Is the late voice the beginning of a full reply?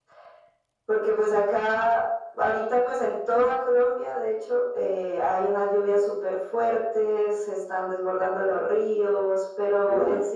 No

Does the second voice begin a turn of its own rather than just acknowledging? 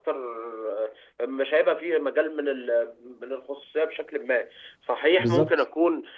No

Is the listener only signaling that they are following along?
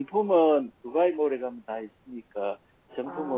Yes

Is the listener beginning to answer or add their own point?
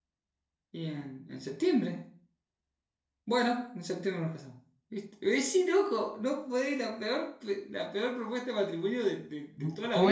Yes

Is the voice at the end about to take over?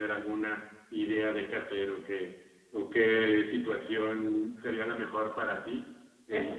Yes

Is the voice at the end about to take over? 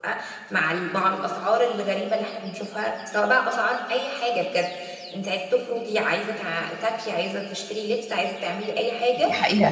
Yes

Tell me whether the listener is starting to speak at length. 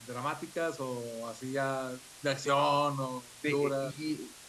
Yes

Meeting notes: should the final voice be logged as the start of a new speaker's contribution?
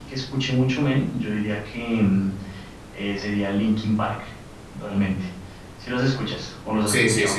Yes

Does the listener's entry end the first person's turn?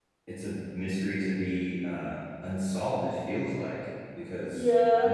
Yes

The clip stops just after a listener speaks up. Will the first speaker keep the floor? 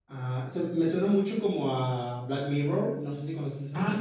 No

